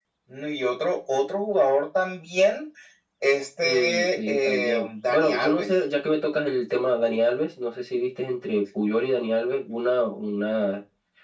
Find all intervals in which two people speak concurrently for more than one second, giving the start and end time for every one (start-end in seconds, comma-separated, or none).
3.6-5.7